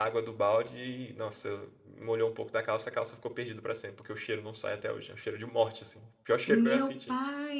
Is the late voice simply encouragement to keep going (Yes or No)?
No